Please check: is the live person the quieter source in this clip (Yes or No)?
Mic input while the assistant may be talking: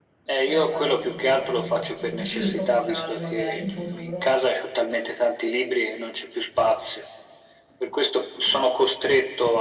Yes